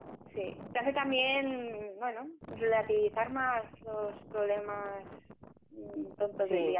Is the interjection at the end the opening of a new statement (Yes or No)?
No